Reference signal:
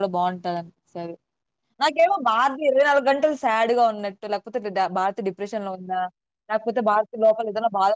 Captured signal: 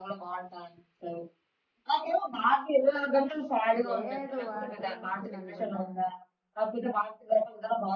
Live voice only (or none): లేదు వాడుతోనే వస్తుంది అనుకుంటా